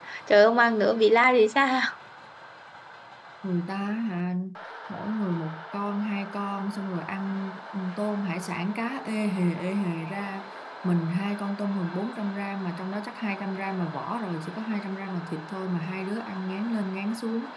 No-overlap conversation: Yes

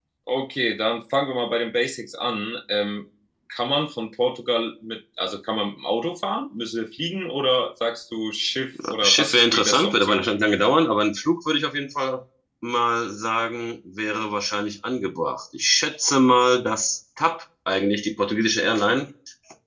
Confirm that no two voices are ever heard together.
No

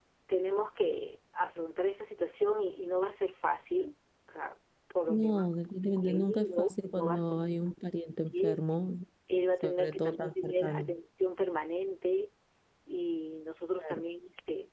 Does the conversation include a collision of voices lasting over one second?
Yes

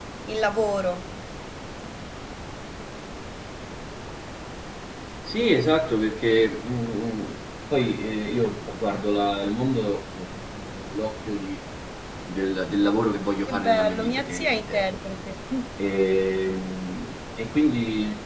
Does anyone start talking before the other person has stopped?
Yes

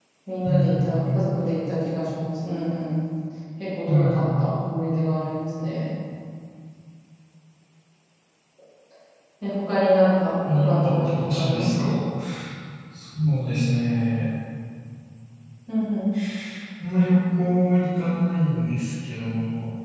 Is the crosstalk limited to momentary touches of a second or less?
No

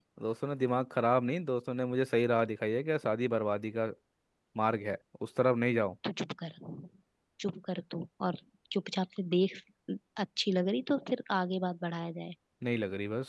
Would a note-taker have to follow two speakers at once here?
No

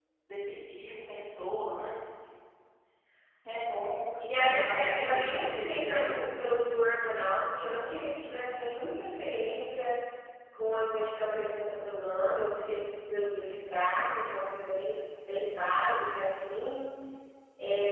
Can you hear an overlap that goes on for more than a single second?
Yes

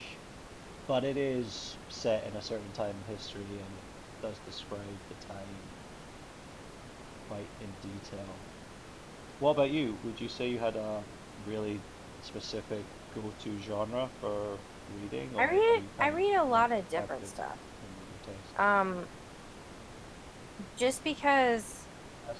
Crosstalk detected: Yes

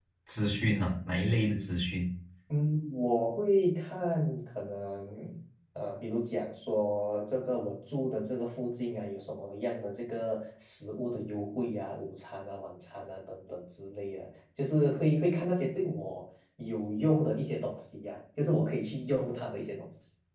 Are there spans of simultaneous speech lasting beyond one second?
No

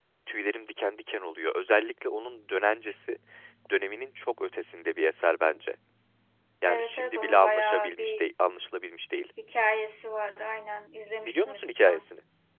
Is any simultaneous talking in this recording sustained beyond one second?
Yes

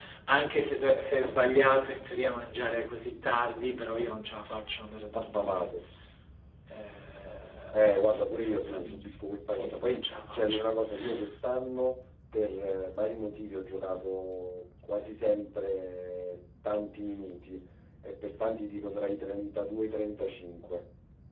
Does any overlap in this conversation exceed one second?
Yes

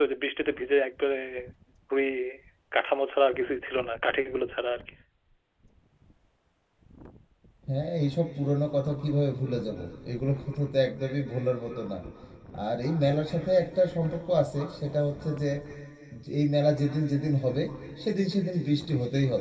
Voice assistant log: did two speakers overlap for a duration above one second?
No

